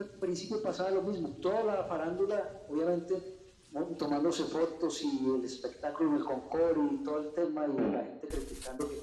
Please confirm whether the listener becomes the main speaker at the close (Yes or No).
No